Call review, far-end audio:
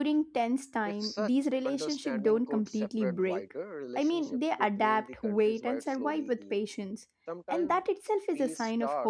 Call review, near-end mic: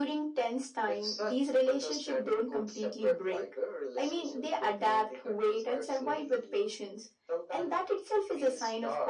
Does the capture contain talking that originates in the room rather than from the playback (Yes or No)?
No